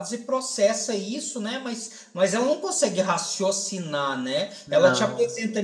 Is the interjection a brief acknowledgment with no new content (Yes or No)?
Yes